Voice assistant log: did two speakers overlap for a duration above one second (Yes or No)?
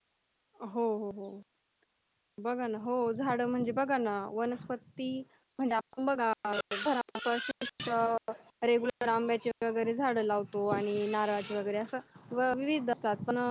No